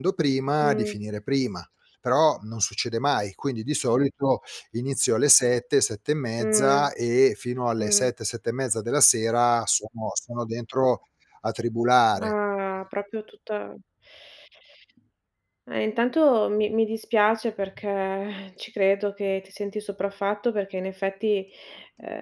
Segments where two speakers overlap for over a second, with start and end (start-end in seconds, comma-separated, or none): none